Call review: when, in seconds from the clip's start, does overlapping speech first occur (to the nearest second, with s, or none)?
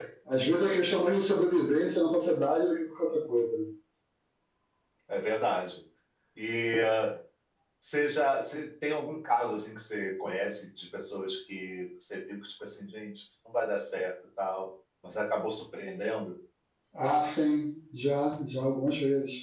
none